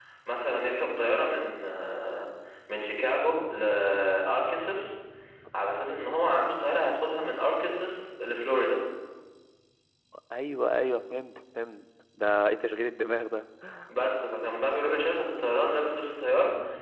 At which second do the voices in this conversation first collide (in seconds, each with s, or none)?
none